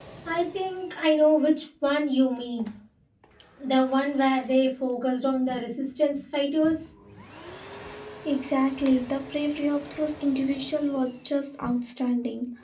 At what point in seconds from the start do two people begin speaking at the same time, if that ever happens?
none

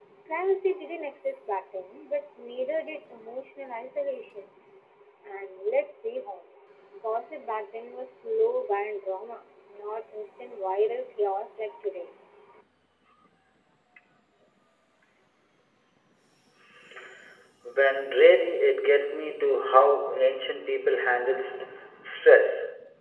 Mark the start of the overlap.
none

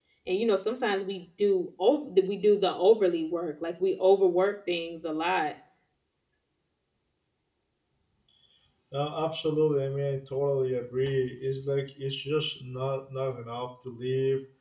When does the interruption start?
none

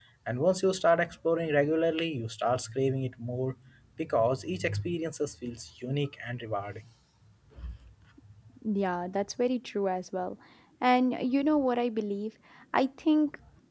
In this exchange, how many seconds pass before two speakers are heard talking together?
none

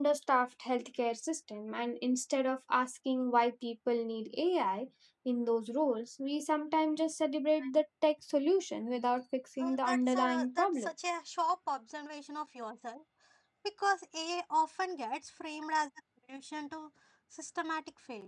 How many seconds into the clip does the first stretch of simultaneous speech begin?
9.6 s

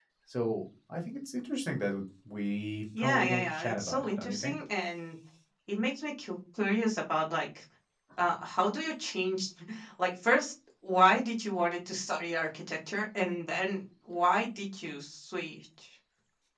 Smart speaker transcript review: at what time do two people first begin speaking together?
2.9 s

